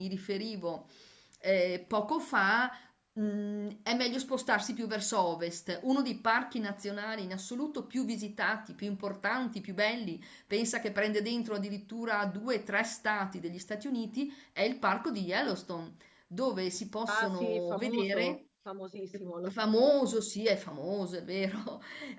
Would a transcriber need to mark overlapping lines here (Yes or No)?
Yes